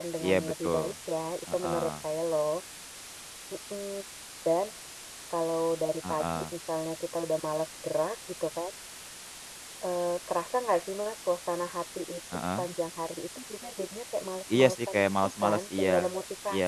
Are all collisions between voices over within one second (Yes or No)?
No